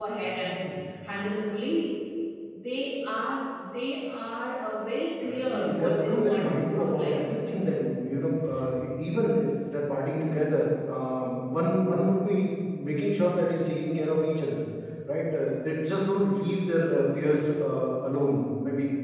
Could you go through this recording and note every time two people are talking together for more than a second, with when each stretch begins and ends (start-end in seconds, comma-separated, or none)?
5.2-7.3